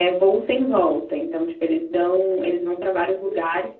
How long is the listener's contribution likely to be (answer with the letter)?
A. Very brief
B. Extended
A